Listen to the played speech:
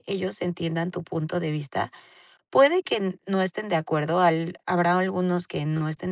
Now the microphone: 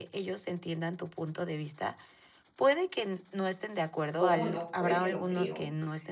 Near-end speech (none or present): present